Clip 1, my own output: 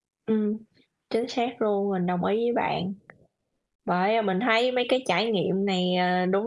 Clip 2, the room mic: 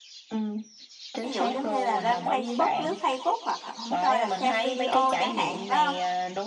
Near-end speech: present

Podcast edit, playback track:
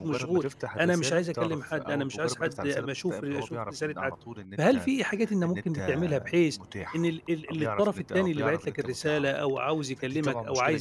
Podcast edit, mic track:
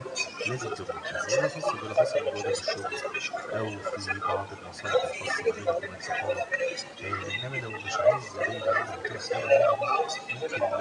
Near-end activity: present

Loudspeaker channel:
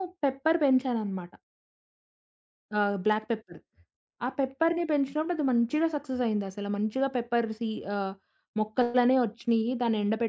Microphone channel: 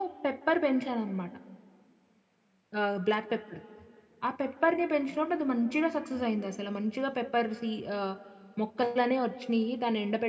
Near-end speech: none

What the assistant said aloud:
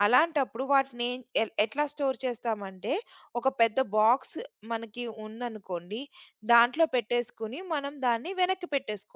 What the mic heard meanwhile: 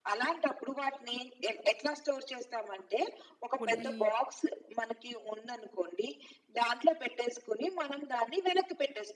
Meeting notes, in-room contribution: present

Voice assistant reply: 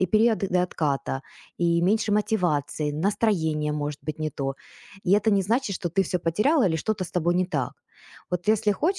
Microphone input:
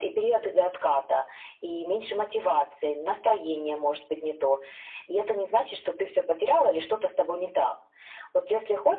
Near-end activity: none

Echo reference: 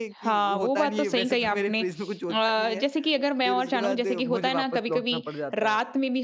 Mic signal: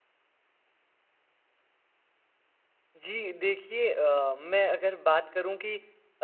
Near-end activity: present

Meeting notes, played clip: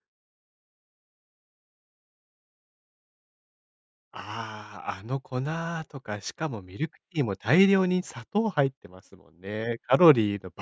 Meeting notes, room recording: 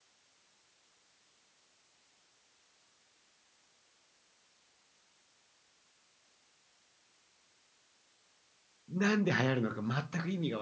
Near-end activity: present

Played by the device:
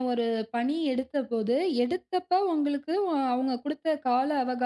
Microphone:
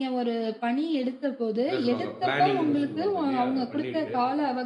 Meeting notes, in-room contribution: present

